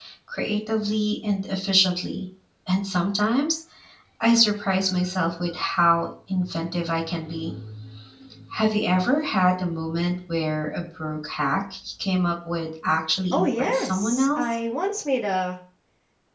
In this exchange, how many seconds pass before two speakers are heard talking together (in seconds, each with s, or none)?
13.3 s